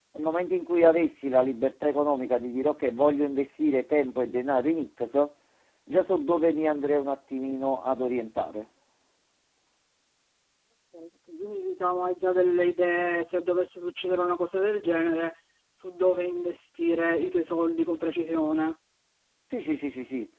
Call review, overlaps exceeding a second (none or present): none